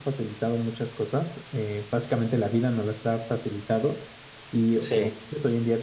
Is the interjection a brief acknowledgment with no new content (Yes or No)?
Yes